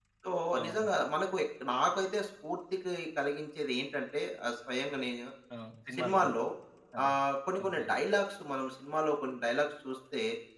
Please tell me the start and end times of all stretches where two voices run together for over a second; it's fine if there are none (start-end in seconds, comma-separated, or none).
none